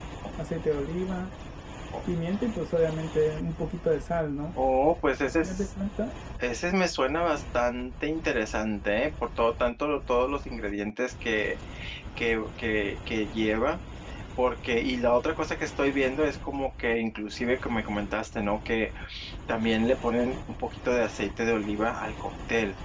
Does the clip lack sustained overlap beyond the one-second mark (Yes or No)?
Yes